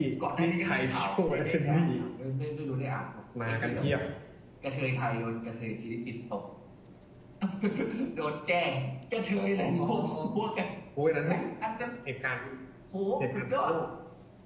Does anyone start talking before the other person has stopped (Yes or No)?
Yes